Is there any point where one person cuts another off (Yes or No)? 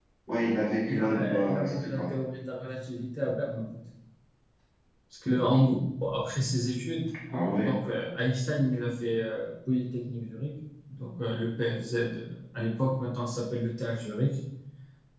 Yes